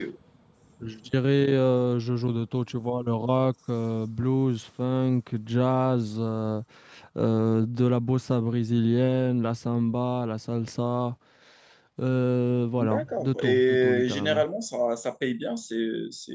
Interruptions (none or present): present